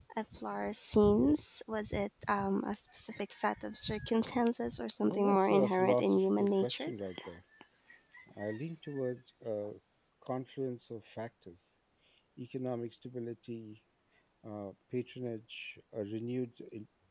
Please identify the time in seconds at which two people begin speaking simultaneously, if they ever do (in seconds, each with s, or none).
5.0 s